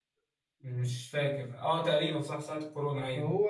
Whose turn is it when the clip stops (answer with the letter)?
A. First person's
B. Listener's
B